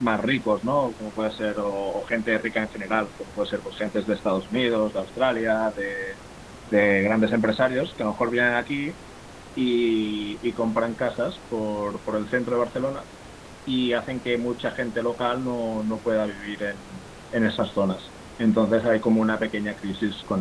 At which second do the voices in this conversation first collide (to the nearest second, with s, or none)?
none